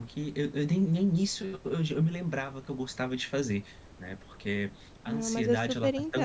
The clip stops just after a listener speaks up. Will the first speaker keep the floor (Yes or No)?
No